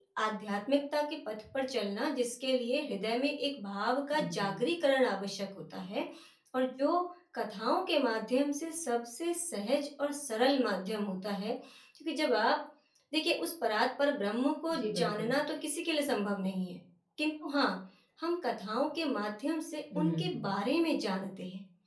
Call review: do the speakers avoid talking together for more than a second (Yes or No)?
Yes